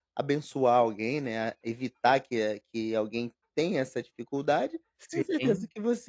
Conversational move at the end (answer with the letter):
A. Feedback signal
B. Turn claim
A